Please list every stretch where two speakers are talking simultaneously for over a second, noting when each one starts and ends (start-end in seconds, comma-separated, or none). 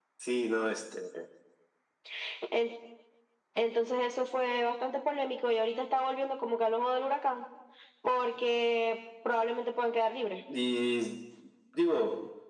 none